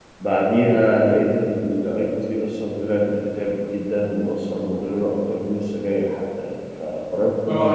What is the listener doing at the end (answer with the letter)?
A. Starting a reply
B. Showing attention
A